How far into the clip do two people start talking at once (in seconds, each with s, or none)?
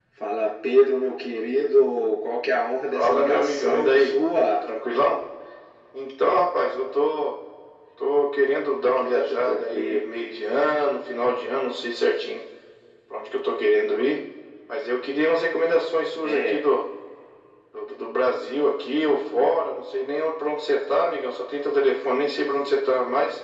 2.9 s